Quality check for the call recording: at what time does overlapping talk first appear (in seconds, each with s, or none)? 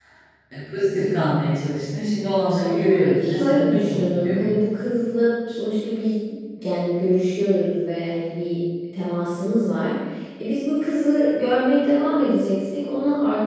2.4 s